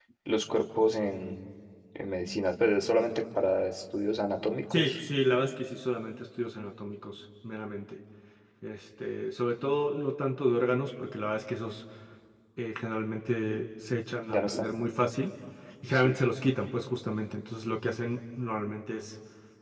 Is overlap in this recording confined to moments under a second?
Yes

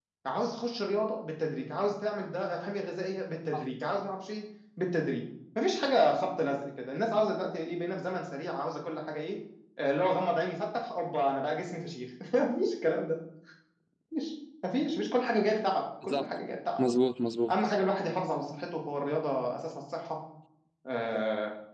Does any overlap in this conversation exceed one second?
No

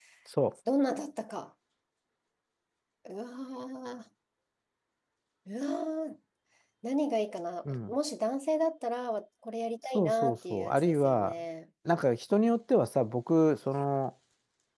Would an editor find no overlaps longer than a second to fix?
No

